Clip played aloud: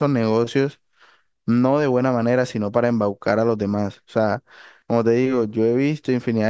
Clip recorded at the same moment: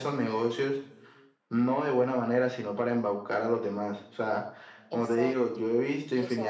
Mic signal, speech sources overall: both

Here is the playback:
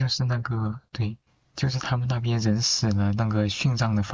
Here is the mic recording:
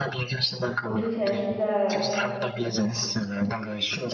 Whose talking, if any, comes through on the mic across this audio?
both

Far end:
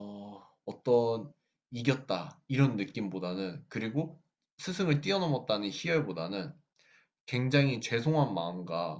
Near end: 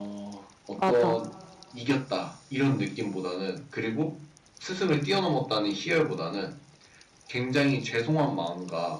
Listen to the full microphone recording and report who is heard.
both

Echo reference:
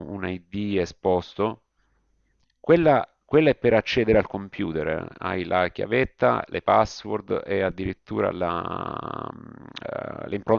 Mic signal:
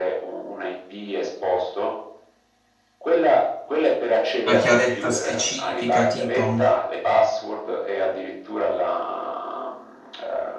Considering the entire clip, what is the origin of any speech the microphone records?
both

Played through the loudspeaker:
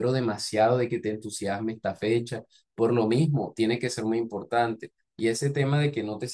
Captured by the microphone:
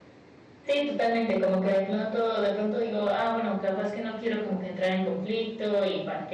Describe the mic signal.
user only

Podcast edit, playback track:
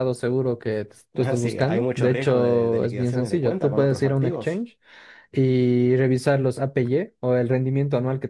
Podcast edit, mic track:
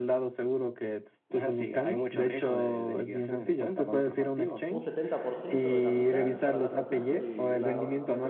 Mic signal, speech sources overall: both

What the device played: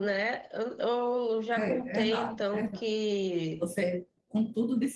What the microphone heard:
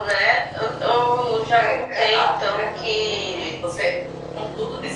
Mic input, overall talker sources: echo only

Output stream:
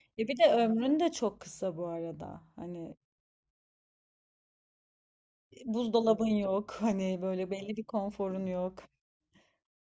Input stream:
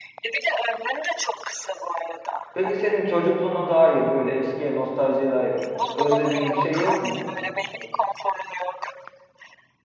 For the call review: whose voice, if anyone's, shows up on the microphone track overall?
both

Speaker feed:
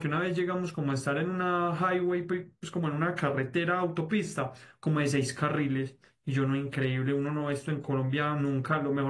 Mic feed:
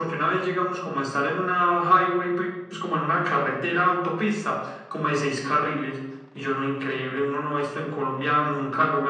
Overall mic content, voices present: echo only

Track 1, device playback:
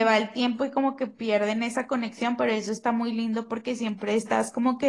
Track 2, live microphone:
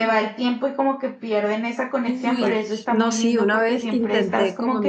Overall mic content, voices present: both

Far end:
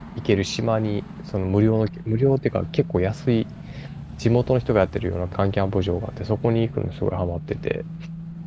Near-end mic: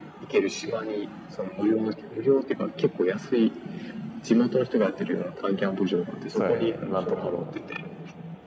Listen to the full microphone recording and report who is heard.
both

